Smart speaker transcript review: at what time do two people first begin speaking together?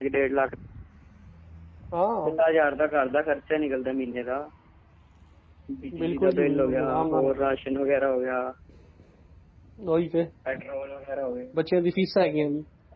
6.0 s

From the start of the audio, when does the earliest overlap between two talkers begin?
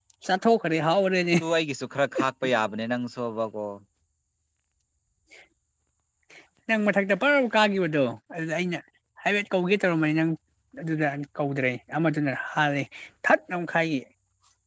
none

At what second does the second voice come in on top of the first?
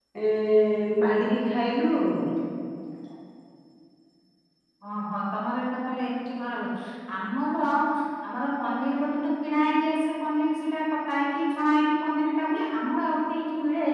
none

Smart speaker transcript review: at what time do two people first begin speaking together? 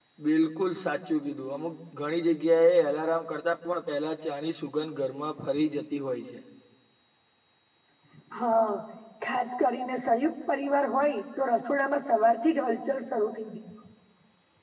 none

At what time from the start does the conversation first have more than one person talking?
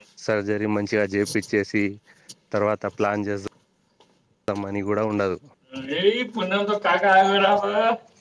none

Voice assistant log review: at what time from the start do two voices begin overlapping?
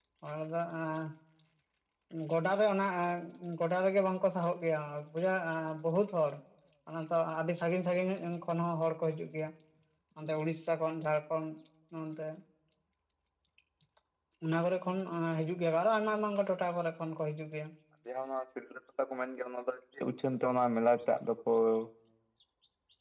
none

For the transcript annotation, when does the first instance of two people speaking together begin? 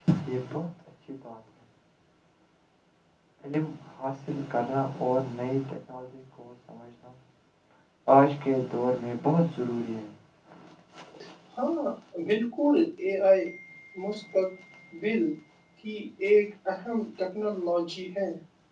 none

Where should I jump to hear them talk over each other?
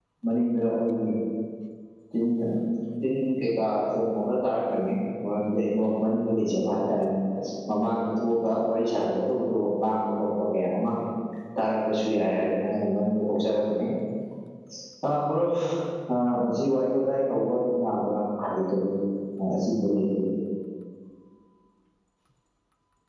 none

